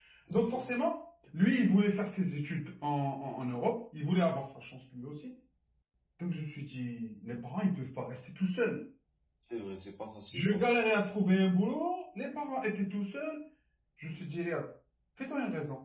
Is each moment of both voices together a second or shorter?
Yes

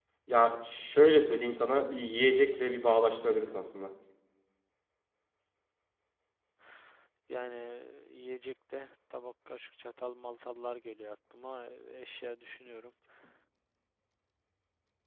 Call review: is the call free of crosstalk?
Yes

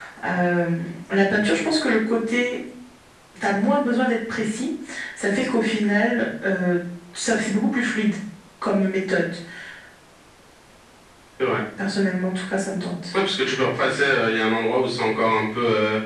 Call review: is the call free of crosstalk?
Yes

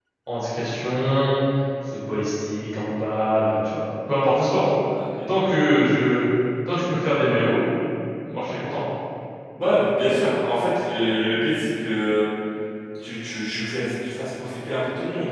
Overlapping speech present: No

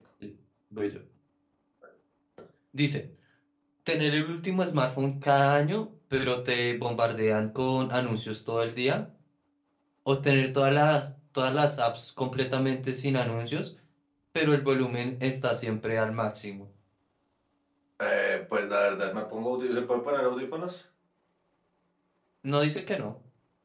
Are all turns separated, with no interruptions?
Yes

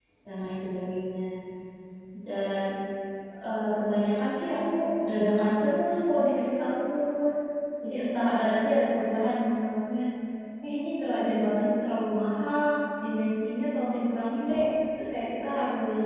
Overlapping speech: No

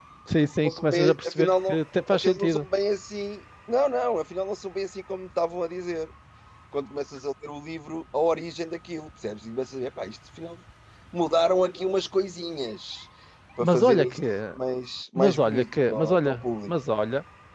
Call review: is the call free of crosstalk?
No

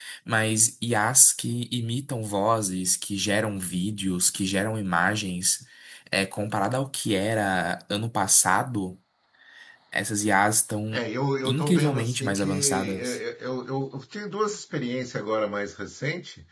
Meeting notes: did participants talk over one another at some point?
Yes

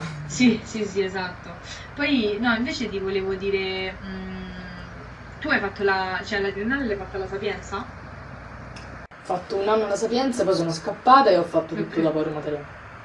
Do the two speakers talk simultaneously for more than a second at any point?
No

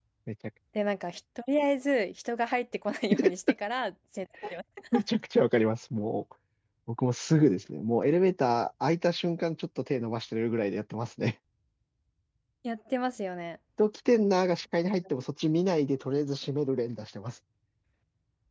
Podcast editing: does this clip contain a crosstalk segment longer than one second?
No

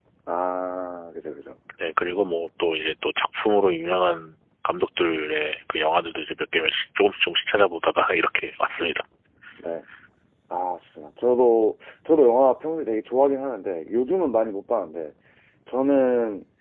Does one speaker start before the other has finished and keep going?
No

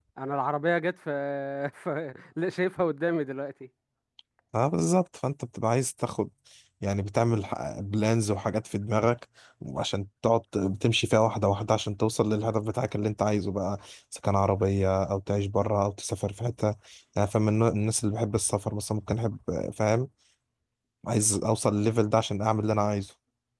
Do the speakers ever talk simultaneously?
No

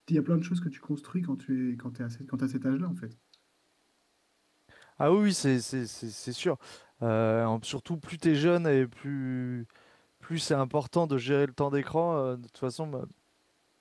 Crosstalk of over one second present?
No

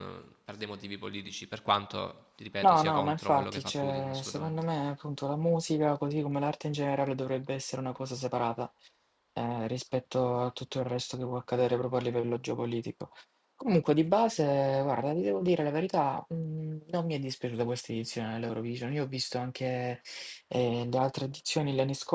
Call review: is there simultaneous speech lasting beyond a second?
Yes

